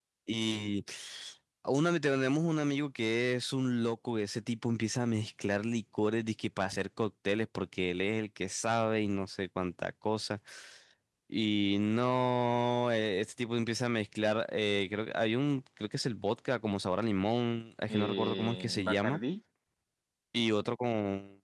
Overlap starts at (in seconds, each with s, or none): 17.9 s